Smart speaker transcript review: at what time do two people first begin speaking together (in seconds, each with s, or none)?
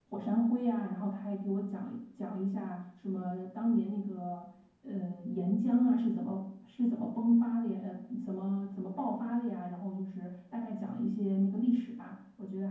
none